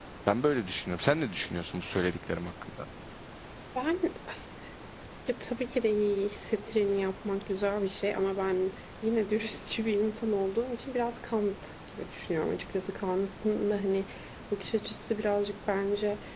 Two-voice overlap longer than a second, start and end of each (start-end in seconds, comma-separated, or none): none